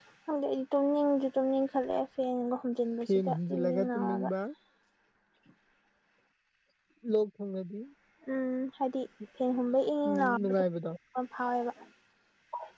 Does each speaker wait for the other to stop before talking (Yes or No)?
No